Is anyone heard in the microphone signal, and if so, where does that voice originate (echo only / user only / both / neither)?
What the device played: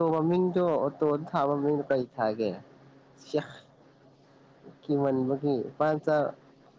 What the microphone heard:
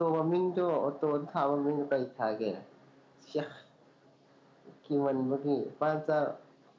echo only